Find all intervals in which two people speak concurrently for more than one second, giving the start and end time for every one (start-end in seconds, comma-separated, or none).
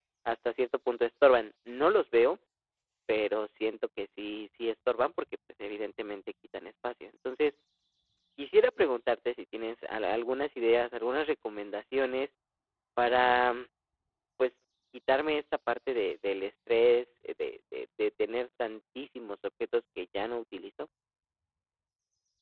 none